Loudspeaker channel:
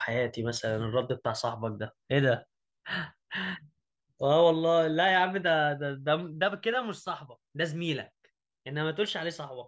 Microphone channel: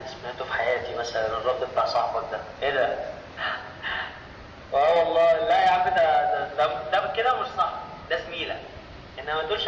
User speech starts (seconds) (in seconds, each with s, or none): none